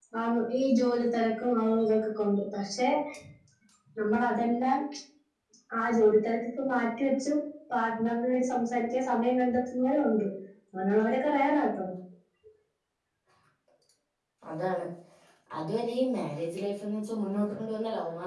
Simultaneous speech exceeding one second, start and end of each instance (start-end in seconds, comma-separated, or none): none